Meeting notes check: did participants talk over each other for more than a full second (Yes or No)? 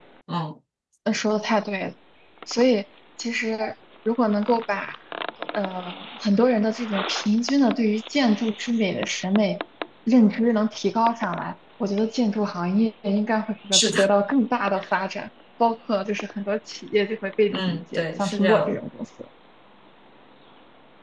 Yes